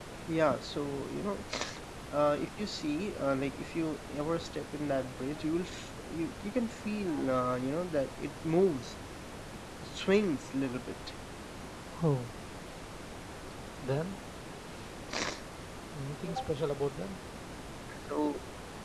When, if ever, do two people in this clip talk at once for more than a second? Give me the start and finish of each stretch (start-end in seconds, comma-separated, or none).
none